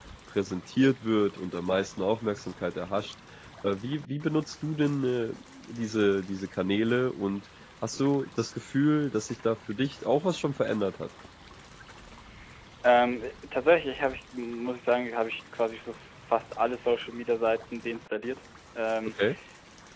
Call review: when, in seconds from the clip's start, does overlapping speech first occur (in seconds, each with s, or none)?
none